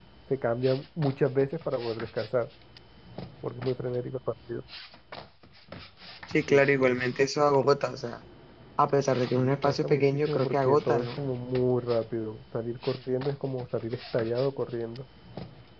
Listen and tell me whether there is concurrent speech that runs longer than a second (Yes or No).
Yes